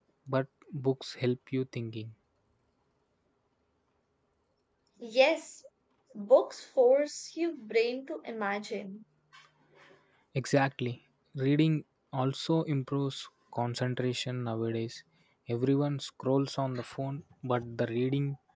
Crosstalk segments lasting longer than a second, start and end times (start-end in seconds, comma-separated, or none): none